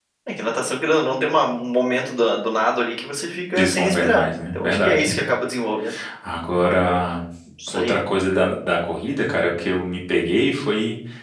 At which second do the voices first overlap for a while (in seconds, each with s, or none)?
3.5 s